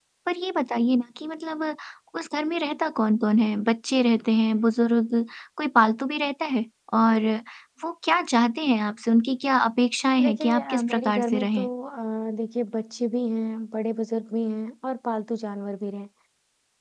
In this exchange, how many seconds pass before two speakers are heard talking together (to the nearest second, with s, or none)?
10 s